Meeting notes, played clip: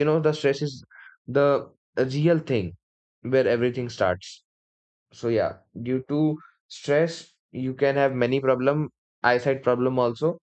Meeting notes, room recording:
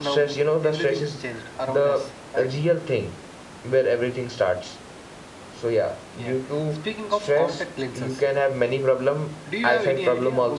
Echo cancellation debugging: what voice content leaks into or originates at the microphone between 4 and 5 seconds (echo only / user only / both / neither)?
echo only